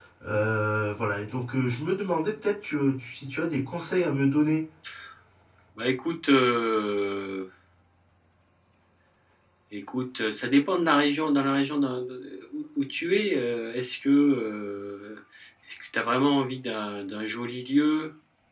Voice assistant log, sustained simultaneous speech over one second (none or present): none